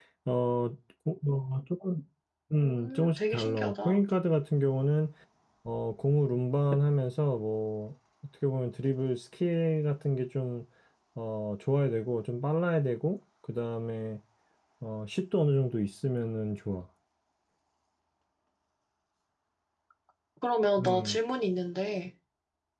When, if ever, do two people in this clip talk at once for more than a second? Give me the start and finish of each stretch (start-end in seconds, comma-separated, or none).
2.6-4.0